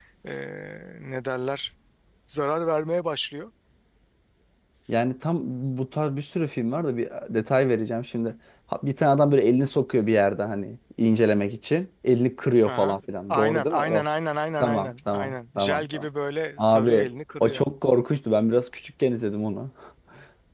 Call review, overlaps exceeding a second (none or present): present